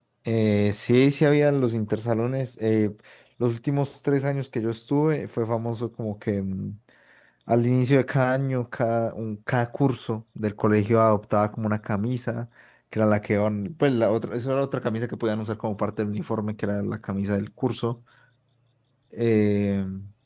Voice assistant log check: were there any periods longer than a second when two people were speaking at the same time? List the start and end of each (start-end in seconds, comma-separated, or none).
none